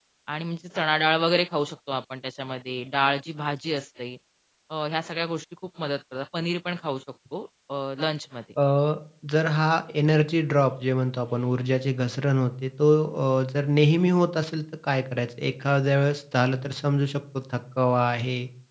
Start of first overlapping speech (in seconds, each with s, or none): none